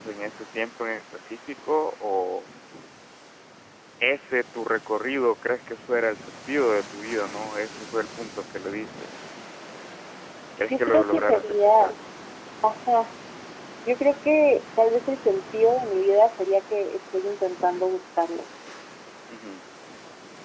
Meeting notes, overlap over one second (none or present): present